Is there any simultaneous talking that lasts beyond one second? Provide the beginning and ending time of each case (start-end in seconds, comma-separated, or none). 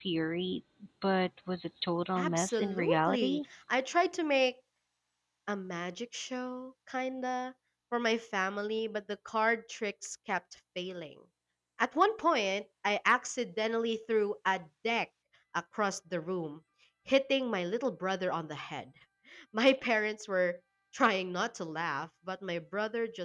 2.1-3.4